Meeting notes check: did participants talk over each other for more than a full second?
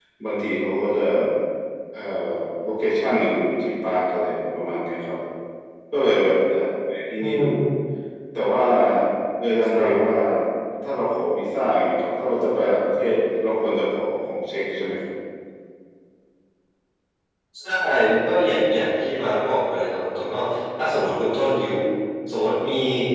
No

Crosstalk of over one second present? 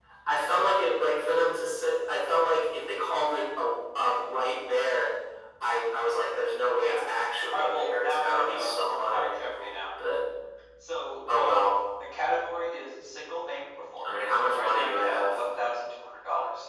Yes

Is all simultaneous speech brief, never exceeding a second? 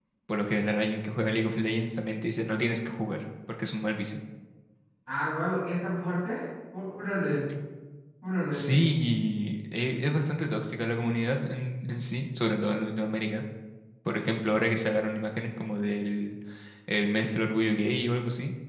Yes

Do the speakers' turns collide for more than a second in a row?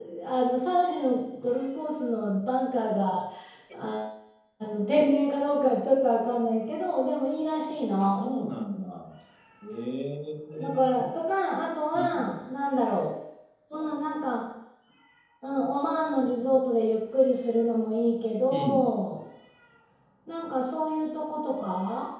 No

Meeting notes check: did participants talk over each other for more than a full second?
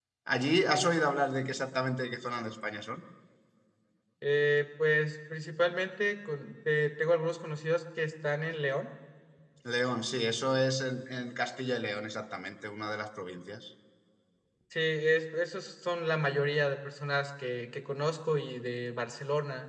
No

